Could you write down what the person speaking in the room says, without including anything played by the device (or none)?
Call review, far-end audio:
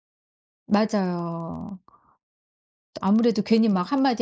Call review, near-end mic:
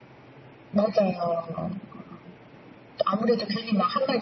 none